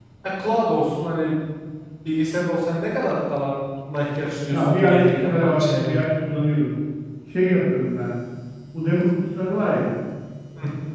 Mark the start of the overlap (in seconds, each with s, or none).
4.5 s